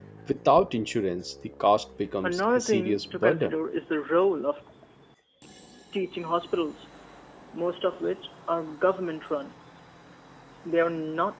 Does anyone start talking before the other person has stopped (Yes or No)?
Yes